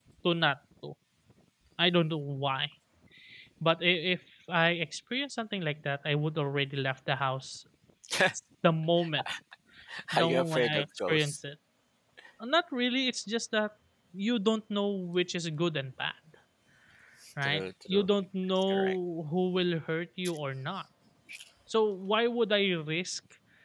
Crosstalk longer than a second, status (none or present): present